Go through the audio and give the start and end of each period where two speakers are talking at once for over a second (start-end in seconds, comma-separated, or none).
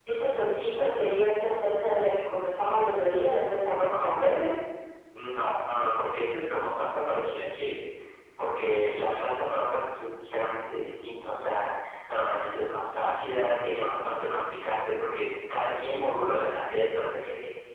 none